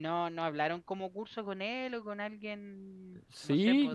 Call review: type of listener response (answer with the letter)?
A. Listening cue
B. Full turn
B